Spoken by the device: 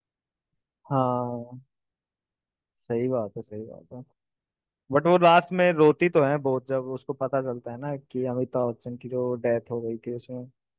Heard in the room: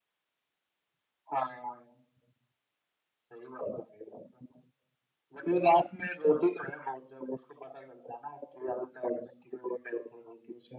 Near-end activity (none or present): none